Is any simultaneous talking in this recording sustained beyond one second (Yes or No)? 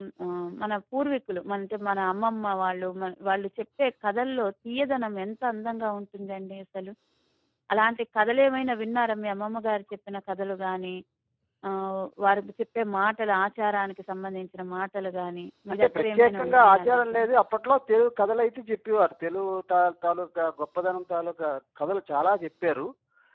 Yes